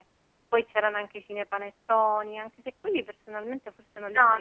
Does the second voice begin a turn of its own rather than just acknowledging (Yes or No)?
Yes